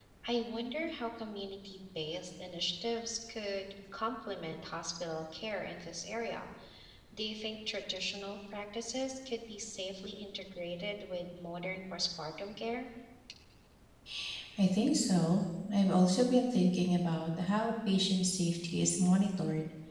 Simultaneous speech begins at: none

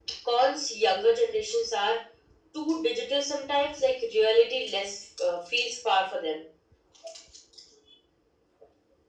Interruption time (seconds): none

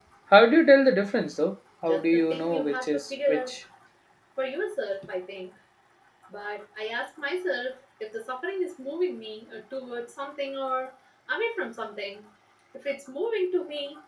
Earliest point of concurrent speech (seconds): 1.8 s

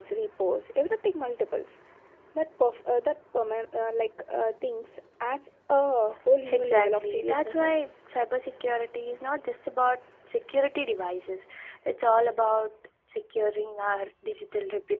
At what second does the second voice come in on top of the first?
6.4 s

